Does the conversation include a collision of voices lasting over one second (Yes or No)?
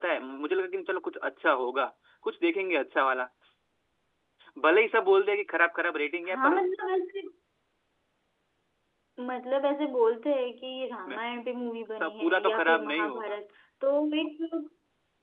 Yes